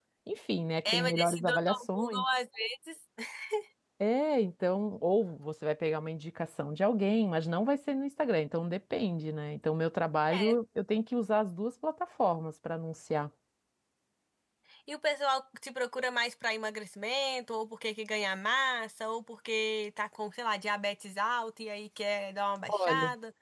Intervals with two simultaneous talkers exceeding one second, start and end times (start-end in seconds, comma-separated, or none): 0.8-2.2